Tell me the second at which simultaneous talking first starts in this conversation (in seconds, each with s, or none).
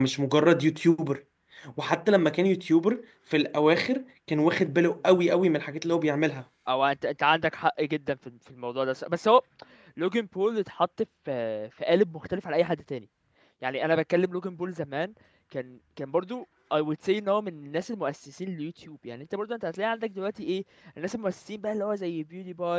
none